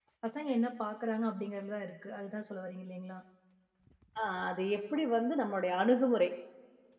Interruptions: none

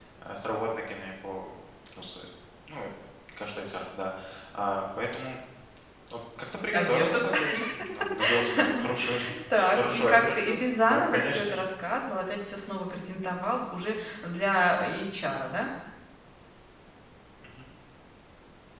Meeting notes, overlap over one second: present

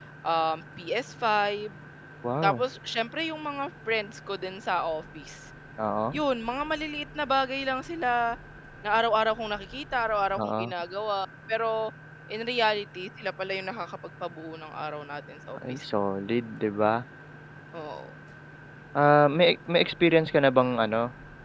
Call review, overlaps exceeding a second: none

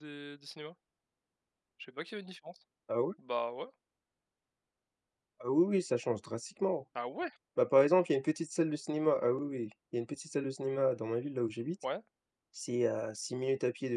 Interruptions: none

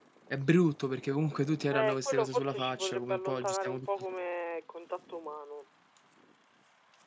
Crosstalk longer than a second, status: present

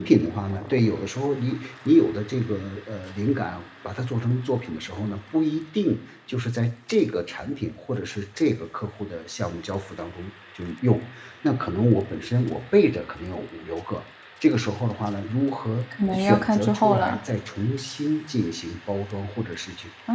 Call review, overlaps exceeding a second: present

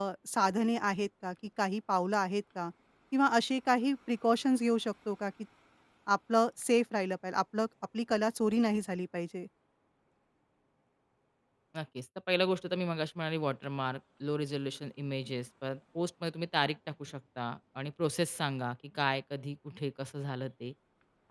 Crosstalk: none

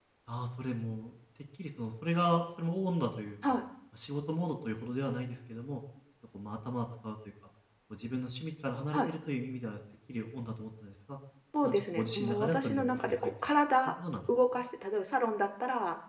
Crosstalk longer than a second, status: present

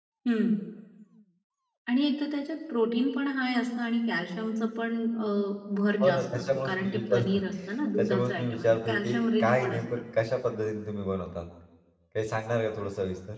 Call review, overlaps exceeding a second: present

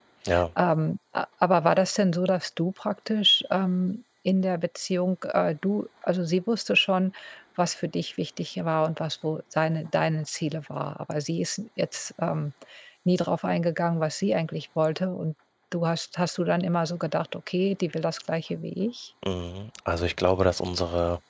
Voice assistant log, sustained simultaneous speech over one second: none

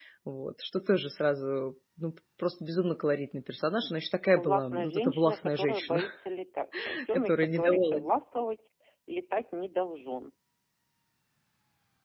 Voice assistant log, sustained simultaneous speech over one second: present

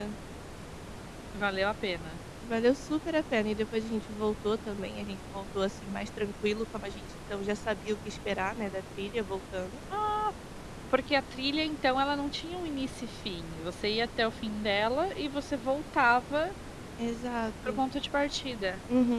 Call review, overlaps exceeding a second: none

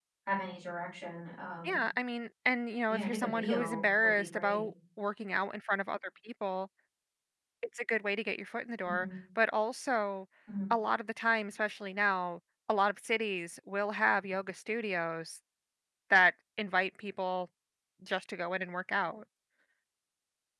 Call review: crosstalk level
present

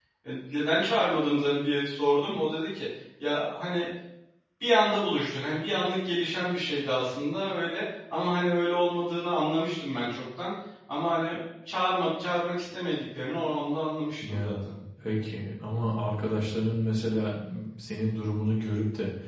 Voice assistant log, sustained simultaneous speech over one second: none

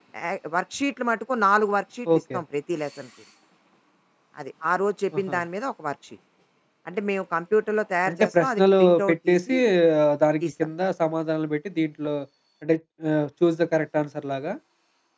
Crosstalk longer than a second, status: present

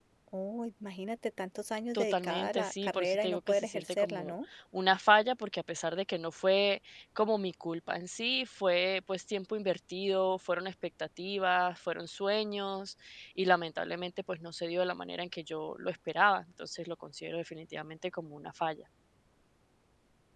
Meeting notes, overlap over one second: present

